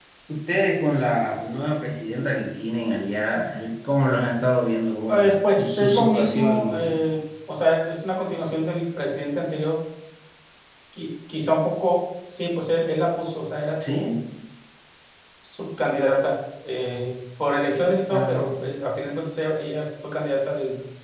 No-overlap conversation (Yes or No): No